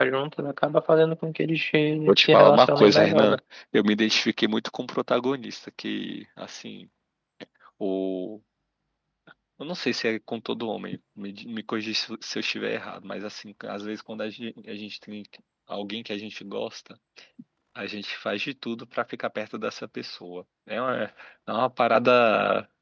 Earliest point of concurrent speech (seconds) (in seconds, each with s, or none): 2.1 s